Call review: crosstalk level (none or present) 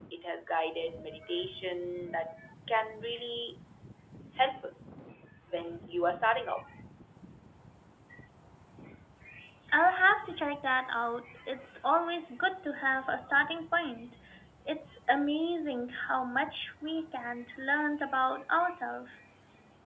none